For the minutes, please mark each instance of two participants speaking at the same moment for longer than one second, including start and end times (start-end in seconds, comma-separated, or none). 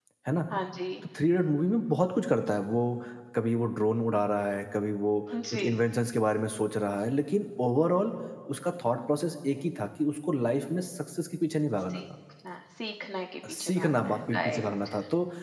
13.5-14.9